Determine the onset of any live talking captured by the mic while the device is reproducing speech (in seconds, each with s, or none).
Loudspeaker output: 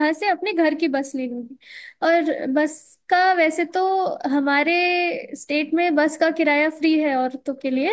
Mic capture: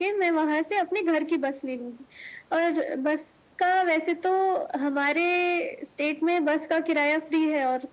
none